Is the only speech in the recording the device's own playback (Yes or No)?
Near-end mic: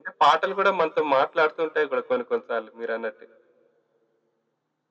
Yes